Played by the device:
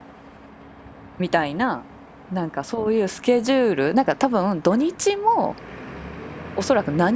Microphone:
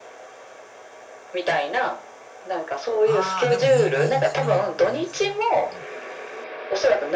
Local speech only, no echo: あ。ああ、でもいい、いい、それはいいやつやんな。うん。

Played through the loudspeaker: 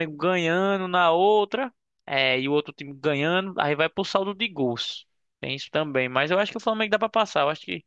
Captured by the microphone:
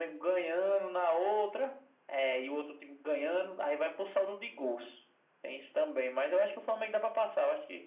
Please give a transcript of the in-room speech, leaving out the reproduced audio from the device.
none

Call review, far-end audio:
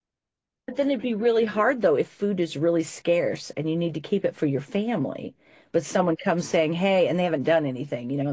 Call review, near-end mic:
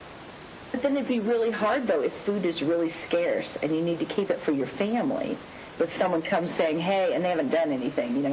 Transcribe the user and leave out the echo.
none

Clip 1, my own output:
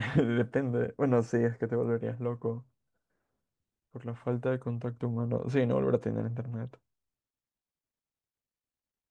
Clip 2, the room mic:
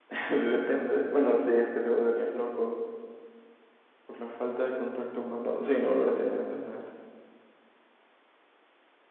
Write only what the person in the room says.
none

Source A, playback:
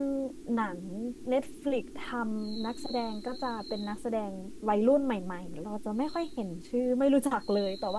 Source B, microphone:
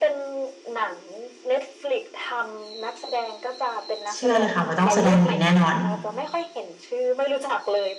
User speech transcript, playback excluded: เชื่อเลยค่ะว่าต้องแสดงดีแน่นอน

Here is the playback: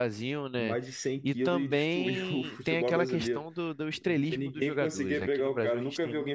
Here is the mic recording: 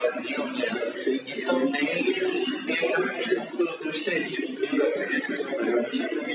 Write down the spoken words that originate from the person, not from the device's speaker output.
none

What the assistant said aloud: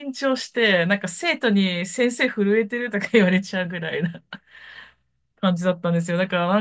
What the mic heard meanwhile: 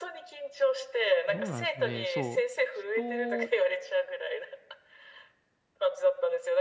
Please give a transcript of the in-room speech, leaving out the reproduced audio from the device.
どうなんでしょうね。そう、人、

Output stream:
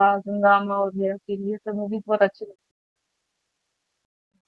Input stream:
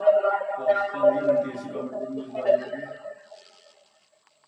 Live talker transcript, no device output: आजकल नहीं बनती ऐसी कॉमेडी मूवीज बॉलीवुड में

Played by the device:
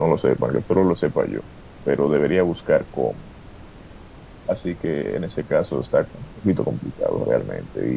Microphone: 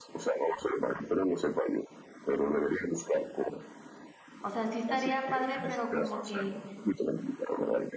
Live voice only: o sea, sí estaría padre, pero como que

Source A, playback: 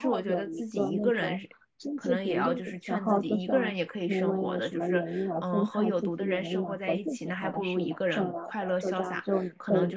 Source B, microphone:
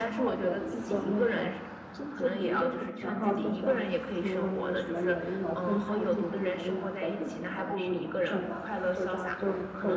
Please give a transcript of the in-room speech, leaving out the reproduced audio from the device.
none

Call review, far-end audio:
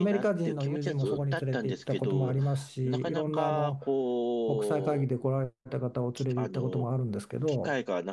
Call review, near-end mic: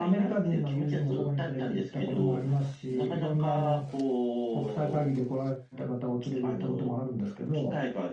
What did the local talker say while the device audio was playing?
none

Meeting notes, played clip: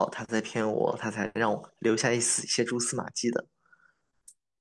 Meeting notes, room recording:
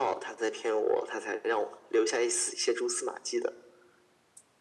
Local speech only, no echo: none

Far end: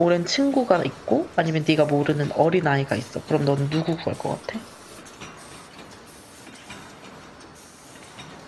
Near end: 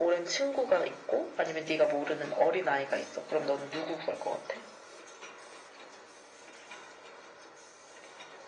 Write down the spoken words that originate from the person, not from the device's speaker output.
none

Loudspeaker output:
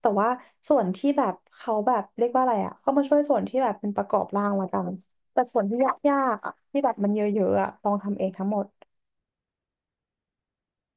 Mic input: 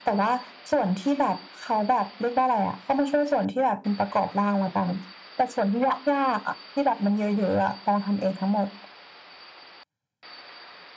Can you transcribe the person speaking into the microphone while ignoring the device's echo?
none

